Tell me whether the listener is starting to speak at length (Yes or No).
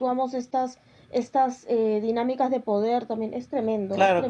Yes